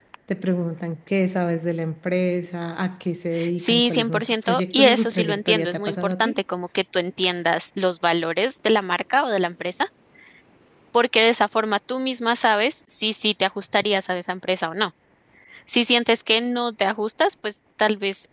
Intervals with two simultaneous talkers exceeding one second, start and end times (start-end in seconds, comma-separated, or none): 3.6-6.4